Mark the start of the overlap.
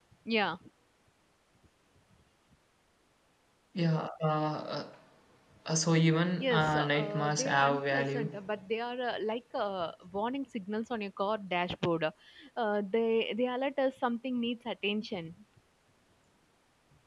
6.4 s

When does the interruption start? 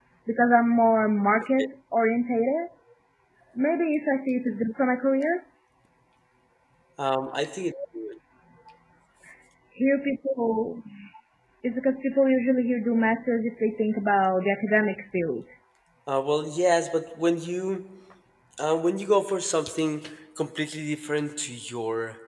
none

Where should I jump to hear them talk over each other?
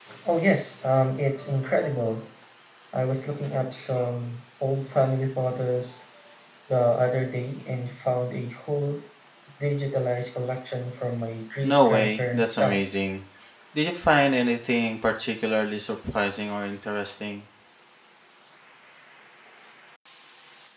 11.6 s

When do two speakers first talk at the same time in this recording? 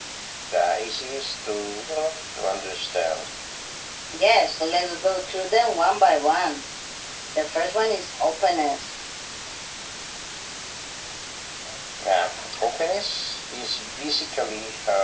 none

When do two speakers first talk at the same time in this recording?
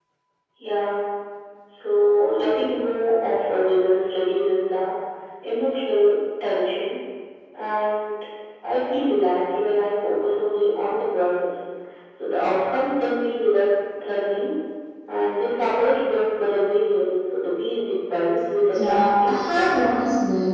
18.7 s

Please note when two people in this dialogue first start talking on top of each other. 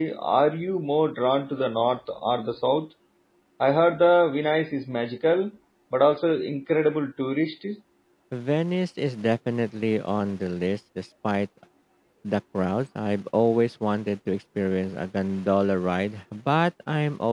none

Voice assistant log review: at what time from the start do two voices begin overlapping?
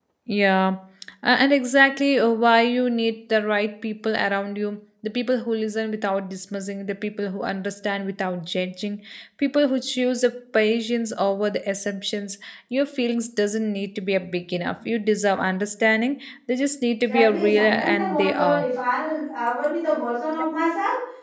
17.1 s

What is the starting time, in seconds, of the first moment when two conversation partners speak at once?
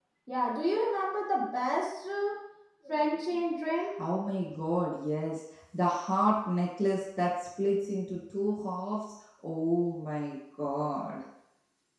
none

